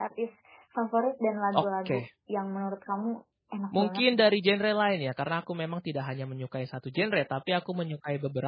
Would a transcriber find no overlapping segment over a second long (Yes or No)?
Yes